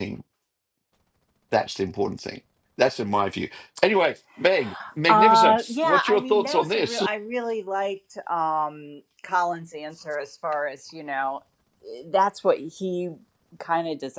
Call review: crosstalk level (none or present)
present